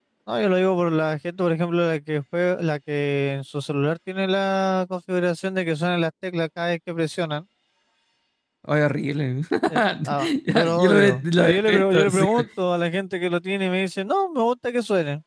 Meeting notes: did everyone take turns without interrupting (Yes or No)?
No